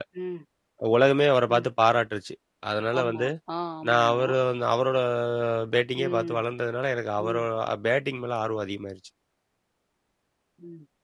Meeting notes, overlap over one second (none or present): none